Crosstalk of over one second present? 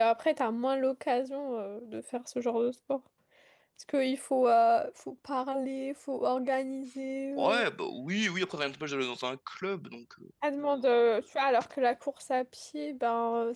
No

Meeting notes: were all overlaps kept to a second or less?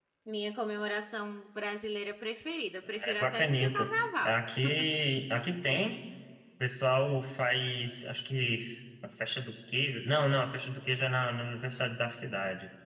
No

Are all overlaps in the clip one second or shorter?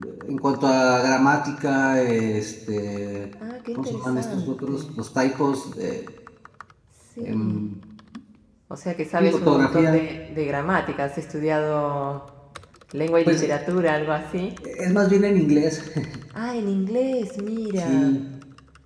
No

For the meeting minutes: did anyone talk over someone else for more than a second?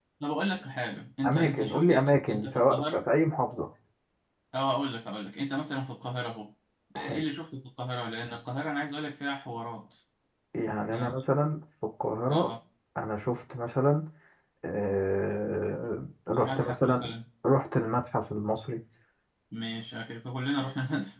Yes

